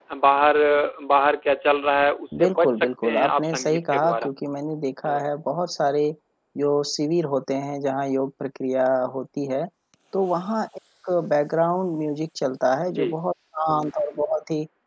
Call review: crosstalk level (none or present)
present